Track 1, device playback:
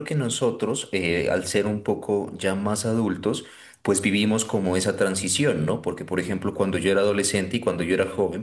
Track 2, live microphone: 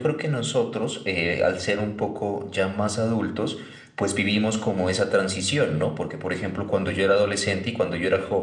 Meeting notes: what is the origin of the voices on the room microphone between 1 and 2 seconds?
echo only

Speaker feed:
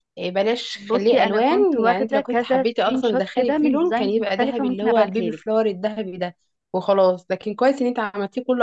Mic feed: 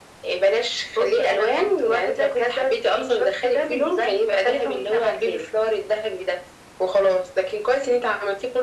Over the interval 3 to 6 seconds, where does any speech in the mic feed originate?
echo only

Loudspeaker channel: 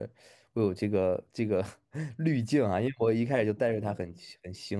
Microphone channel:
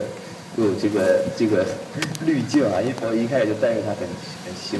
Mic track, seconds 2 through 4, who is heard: echo only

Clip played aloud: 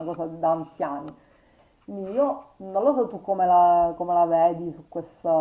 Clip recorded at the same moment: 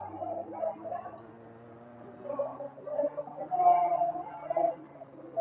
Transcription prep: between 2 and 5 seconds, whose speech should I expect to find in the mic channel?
echo only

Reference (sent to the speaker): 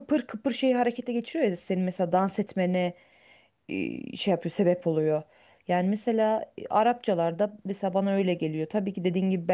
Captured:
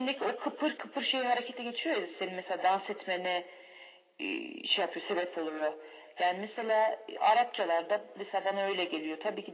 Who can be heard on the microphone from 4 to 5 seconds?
echo only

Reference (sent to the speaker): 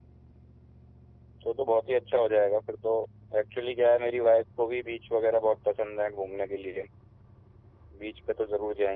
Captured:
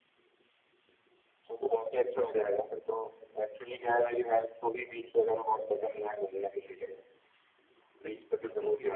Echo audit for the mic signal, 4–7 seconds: echo only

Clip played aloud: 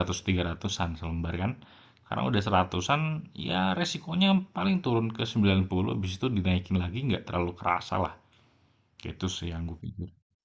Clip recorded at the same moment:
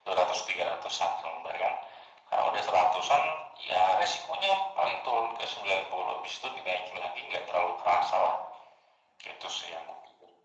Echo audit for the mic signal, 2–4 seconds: echo only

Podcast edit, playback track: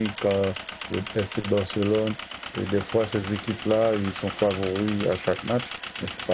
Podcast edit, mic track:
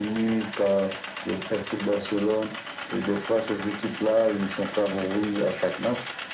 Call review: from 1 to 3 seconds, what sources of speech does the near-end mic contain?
echo only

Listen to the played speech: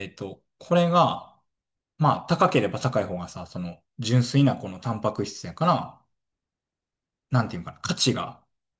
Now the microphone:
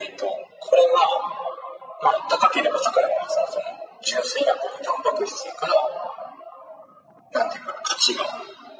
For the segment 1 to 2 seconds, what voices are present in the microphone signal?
echo only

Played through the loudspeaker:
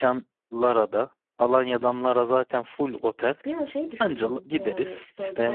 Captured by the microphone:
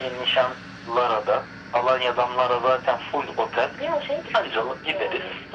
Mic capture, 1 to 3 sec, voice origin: echo only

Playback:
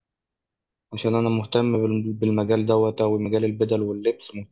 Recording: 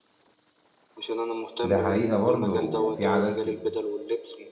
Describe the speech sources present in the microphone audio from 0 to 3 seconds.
both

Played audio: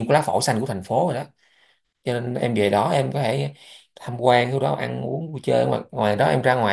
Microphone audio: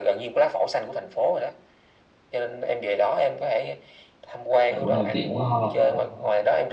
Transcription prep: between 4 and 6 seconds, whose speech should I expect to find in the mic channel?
both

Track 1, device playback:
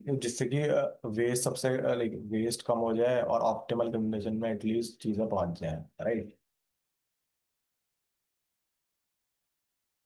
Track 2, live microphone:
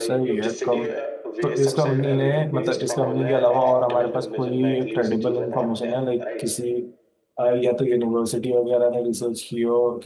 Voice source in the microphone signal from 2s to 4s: both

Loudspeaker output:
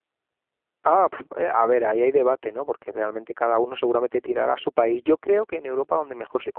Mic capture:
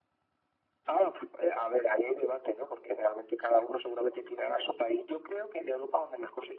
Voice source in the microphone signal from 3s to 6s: echo only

